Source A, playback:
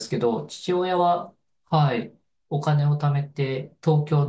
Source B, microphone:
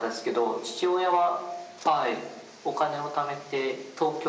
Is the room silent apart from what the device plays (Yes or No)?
Yes